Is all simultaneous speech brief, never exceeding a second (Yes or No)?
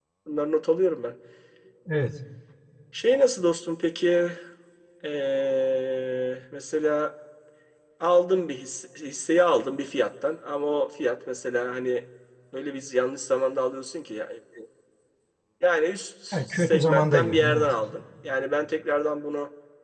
No